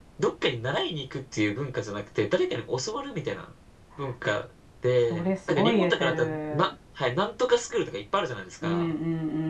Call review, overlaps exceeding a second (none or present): present